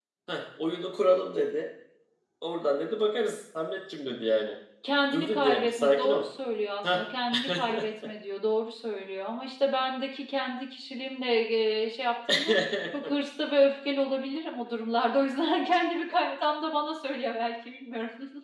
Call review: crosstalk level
present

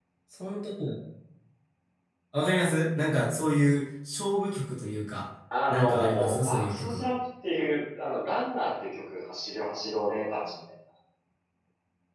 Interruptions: present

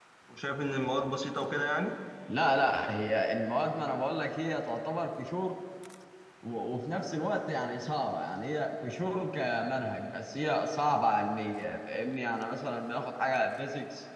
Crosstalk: none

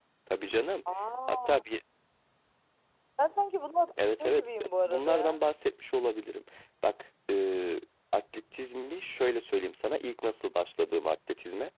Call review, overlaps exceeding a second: present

